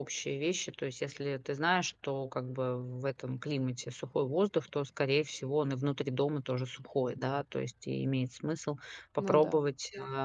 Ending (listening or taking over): listening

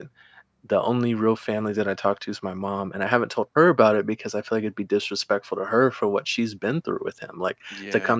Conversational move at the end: listening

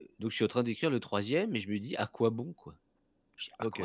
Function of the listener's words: taking over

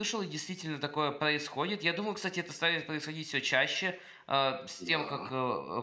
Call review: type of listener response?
listening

